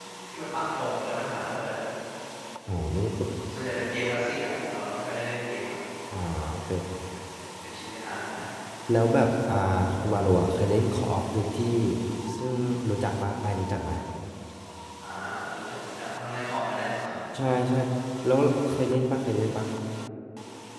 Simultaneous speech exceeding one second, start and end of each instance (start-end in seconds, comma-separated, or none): none